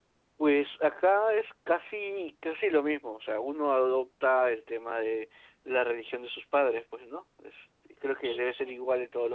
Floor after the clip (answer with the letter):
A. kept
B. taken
A